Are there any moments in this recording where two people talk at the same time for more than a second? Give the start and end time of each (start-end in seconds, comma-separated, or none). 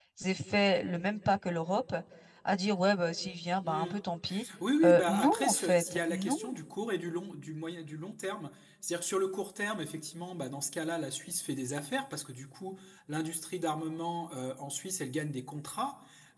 4.8-6.4